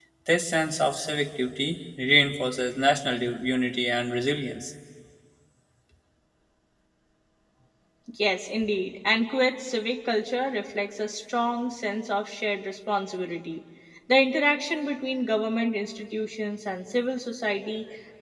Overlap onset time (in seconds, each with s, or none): none